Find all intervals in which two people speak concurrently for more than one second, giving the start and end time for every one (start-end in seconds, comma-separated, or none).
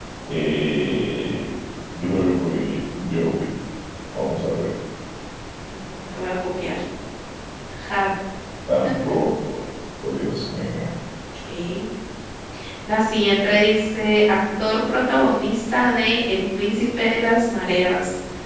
none